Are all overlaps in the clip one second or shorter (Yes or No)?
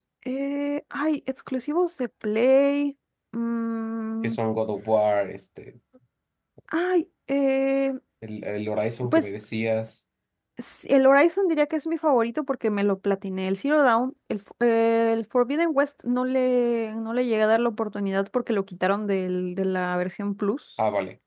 Yes